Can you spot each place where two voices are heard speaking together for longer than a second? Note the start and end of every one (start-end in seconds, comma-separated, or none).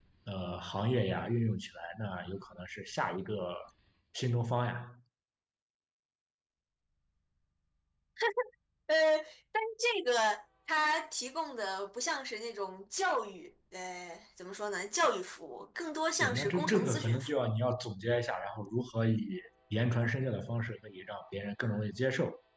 16.2-17.5